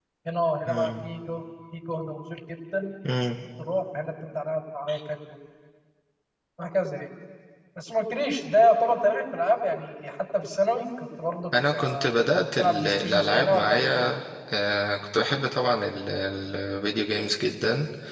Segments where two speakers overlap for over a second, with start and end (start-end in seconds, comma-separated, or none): 12.6-14.1